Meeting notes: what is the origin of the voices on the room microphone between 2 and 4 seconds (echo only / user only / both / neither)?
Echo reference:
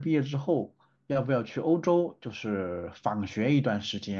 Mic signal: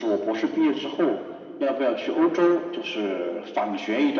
echo only